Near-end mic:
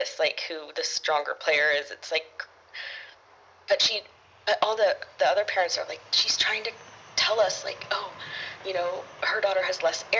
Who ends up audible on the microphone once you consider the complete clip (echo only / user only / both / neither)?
echo only